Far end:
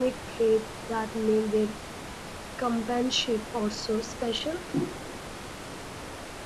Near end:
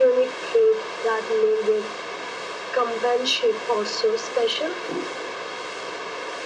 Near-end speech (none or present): none